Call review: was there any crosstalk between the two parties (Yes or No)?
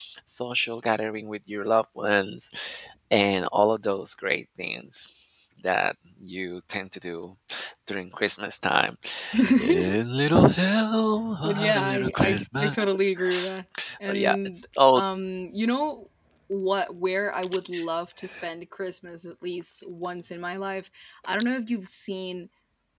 Yes